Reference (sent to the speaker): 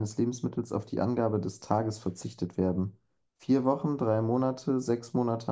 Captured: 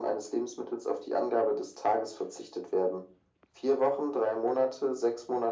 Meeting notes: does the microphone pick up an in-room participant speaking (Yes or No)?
No